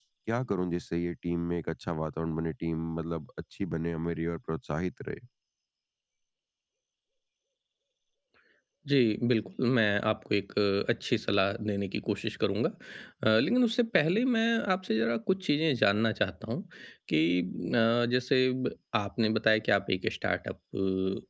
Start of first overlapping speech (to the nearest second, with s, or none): none